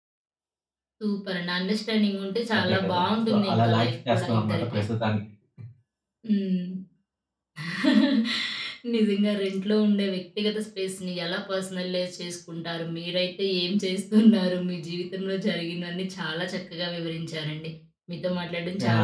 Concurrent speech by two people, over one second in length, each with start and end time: 2.5-4.8

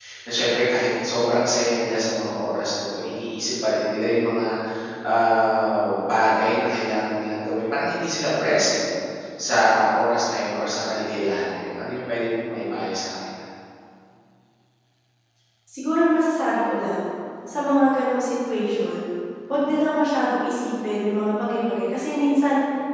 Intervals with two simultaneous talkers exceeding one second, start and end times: none

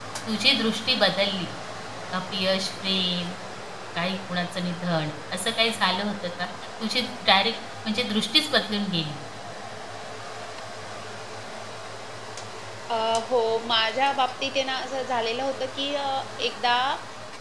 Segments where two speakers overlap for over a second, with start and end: none

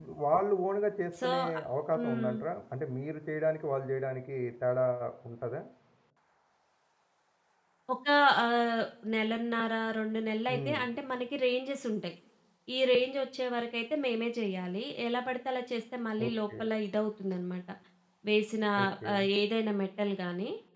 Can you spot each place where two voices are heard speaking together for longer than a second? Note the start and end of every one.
none

